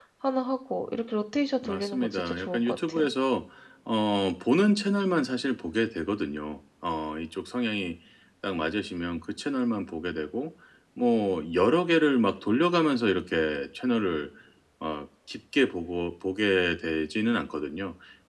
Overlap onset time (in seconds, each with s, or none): 1.6 s